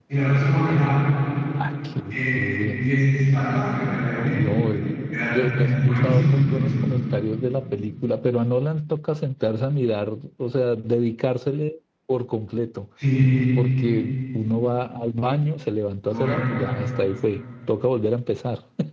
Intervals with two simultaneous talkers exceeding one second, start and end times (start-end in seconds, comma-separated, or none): 5.3-6.9